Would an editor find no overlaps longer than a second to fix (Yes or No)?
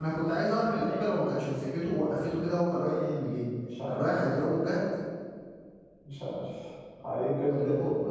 Yes